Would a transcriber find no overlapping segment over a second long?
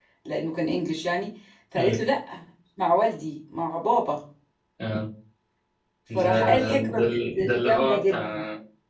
No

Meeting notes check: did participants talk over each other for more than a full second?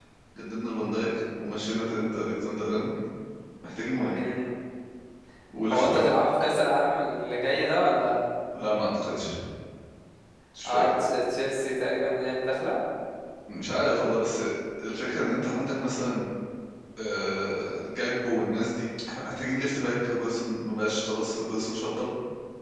No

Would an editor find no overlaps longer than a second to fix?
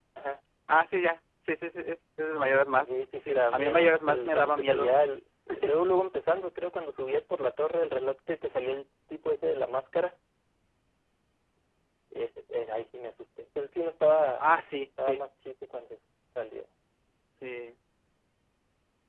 No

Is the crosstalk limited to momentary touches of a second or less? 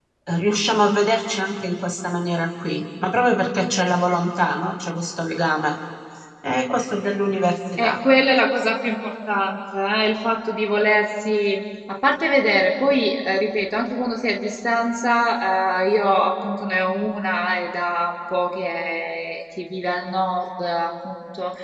Yes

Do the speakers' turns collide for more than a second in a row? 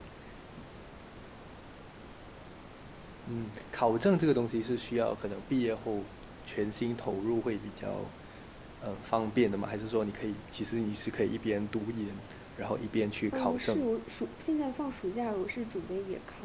No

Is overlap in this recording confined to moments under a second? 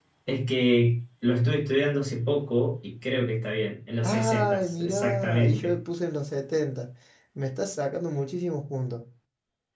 No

